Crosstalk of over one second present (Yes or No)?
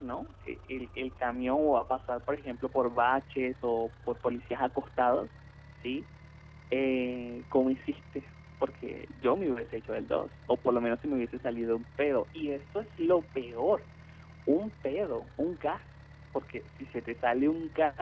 No